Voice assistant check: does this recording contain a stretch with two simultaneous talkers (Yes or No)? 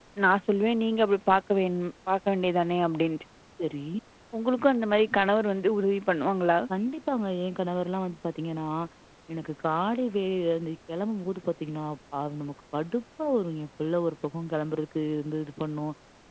No